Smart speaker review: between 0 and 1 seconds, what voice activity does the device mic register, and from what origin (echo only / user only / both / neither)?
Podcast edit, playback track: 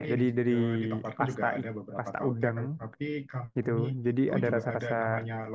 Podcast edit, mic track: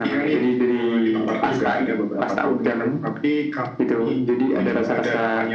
echo only